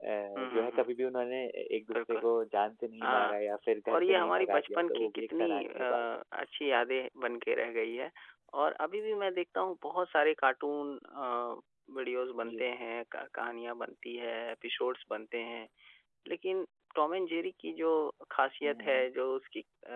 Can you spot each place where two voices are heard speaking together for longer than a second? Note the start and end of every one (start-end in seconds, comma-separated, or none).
3.9-6.0